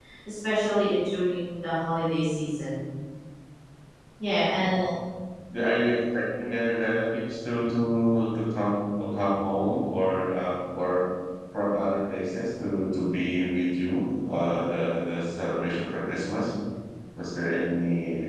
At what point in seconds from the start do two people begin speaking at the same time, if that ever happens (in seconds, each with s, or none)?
none